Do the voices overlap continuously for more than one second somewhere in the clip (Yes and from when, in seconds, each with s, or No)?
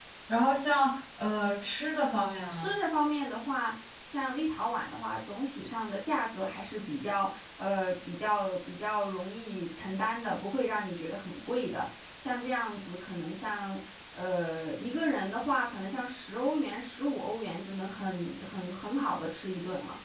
No